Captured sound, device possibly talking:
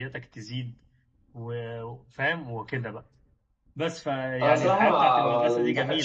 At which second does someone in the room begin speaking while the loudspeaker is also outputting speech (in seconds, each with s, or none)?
4.4 s